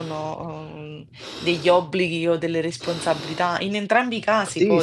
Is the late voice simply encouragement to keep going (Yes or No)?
No